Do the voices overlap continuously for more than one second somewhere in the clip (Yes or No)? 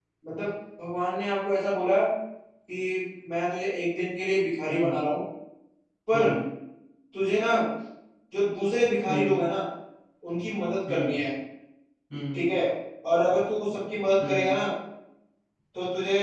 No